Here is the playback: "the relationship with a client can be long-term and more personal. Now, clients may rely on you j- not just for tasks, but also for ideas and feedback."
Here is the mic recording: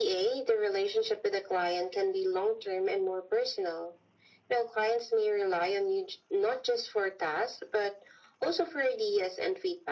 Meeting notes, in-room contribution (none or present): none